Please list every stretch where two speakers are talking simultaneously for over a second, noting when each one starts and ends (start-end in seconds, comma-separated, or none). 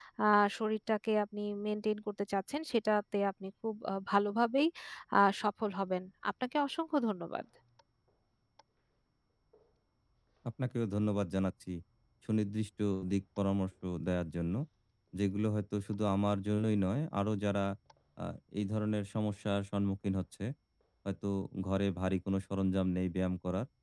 none